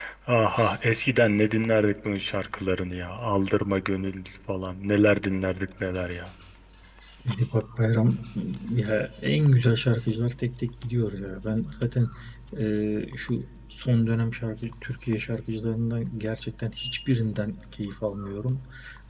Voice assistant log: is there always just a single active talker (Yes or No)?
Yes